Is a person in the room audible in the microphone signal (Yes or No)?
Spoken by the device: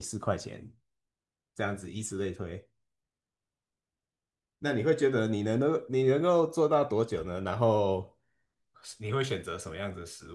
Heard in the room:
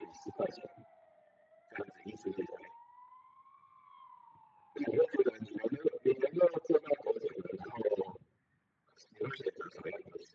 No